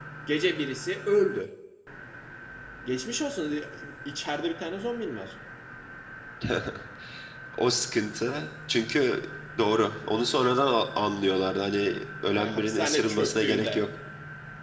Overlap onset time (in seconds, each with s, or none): 12.3 s